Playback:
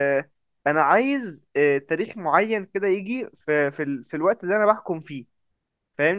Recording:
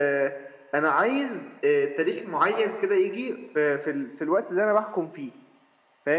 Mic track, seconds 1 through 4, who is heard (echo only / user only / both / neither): echo only